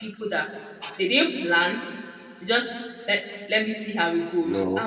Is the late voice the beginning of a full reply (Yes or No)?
No